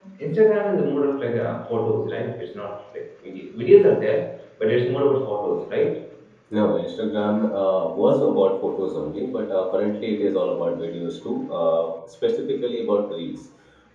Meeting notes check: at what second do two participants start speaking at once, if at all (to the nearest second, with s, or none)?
none